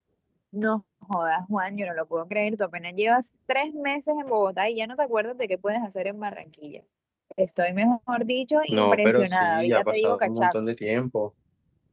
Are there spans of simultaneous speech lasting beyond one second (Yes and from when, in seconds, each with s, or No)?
Yes, from 8.7 s